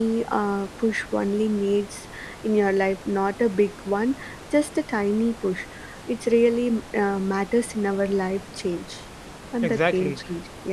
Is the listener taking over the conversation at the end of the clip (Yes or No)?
Yes